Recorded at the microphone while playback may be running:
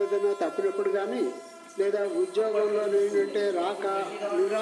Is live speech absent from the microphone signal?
No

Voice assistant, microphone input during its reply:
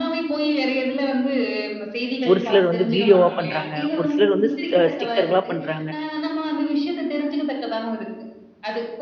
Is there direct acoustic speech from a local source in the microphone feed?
Yes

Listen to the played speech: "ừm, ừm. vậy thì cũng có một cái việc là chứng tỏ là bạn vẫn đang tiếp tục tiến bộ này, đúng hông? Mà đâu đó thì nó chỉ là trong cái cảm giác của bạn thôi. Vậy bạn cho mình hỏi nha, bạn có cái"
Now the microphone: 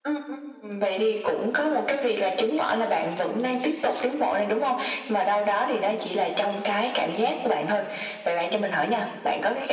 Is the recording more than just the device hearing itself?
No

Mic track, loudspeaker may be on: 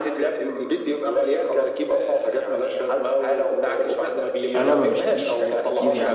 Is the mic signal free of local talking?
No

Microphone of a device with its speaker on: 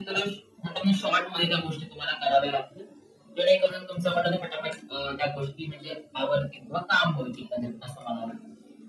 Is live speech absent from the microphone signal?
Yes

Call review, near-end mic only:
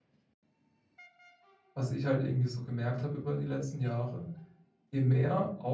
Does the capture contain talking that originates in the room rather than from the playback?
Yes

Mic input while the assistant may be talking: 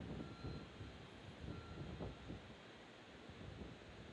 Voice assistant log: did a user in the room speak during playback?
No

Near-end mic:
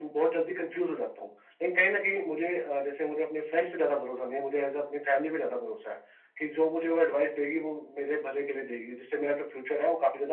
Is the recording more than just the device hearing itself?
No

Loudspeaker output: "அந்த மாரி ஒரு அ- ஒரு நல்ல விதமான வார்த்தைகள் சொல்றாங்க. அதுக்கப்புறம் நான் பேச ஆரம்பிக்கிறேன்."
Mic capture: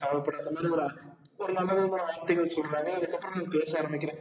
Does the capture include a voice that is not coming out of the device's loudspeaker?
No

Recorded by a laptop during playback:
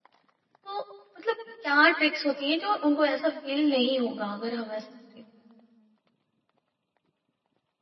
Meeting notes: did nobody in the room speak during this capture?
No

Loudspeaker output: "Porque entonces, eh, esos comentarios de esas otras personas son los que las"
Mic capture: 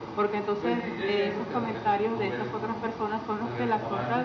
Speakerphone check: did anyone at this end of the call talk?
Yes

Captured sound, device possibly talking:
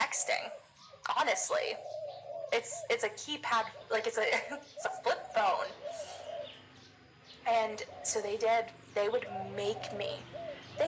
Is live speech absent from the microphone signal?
Yes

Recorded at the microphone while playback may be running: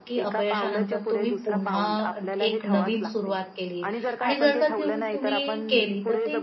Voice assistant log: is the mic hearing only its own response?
No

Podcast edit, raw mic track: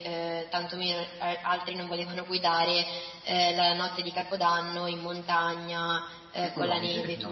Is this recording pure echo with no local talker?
No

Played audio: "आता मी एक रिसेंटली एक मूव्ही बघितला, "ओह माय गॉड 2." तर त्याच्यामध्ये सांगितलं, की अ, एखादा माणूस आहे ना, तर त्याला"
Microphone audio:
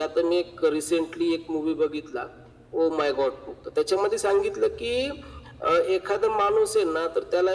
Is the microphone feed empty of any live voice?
Yes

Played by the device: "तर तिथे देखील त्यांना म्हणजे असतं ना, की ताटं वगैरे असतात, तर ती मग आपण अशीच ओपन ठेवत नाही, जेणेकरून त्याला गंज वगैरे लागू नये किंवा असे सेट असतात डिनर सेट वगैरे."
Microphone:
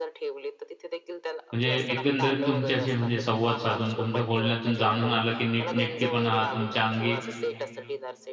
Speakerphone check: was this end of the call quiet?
No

